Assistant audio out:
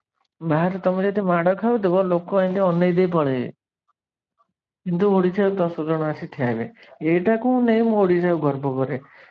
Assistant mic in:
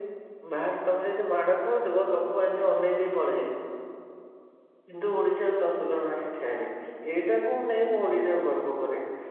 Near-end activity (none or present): none